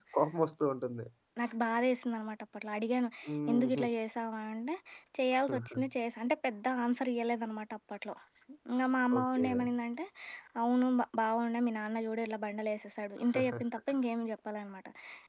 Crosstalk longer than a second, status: none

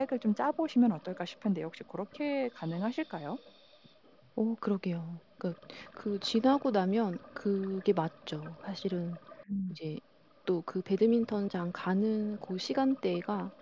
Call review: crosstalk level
none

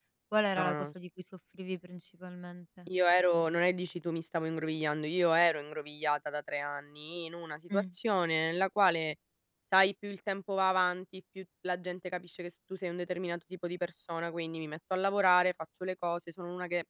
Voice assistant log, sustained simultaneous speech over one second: none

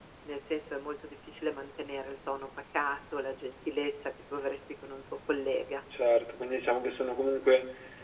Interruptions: none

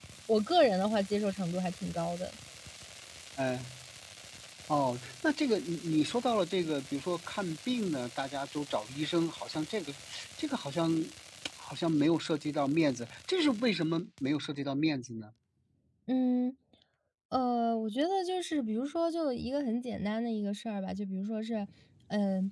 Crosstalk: none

